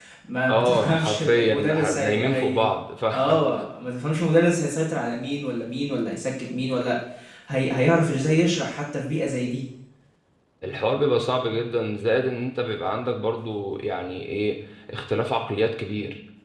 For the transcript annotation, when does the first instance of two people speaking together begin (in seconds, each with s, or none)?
0.5 s